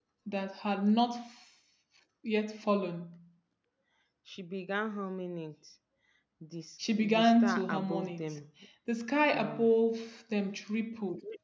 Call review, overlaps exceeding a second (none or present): present